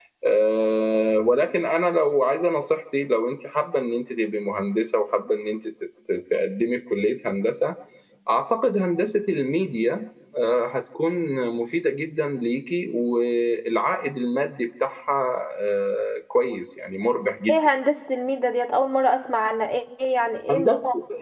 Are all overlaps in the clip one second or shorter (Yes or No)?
Yes